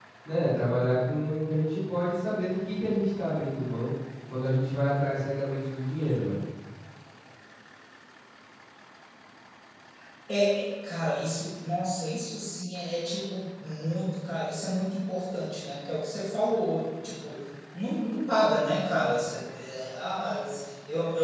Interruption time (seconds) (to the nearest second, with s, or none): none